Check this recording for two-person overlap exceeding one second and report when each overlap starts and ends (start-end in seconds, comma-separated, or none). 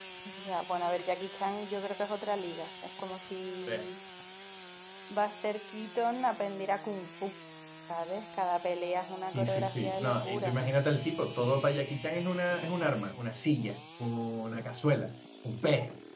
9.2-10.6